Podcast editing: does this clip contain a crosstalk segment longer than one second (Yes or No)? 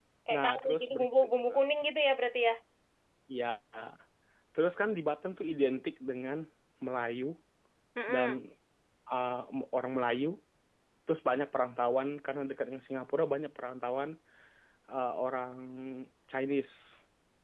Yes